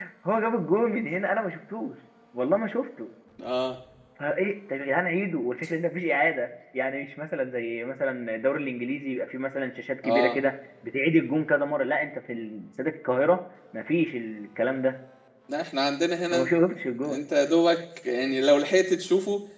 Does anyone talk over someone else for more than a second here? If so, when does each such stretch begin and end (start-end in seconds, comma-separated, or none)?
none